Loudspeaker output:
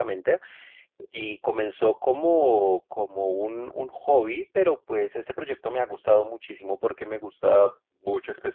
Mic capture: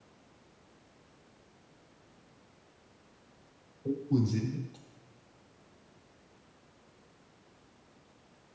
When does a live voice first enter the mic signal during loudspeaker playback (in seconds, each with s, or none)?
3.8 s